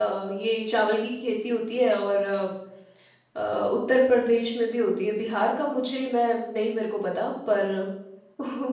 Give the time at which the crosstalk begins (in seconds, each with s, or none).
none